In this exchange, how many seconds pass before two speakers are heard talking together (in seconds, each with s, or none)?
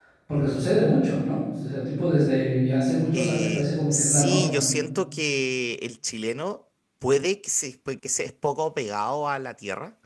3.1 s